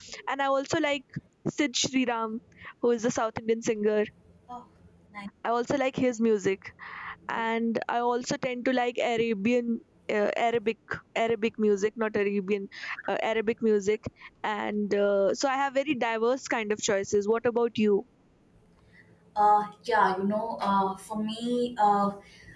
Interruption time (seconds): none

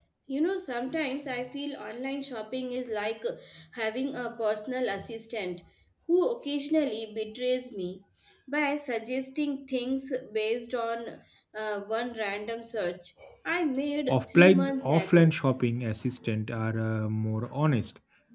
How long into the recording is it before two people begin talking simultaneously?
14.1 s

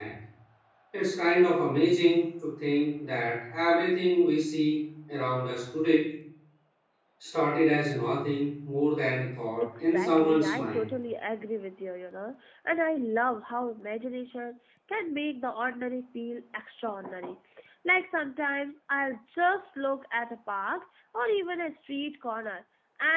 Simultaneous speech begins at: 9.6 s

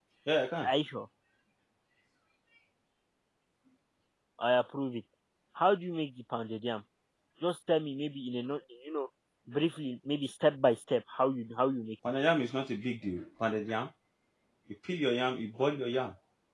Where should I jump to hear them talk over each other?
none

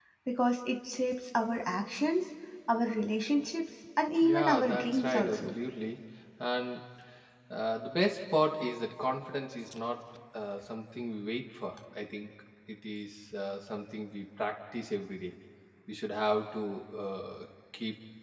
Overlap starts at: 4.2 s

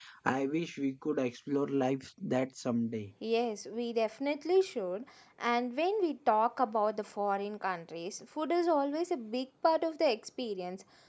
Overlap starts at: none

